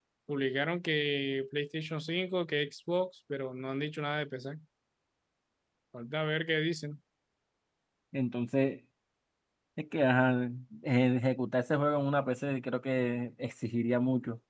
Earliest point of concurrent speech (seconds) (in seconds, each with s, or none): none